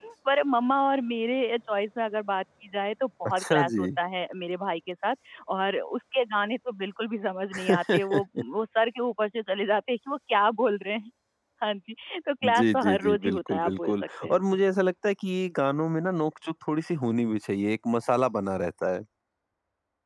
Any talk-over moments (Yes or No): Yes